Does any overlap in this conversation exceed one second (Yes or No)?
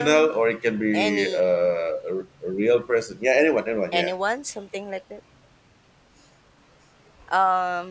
No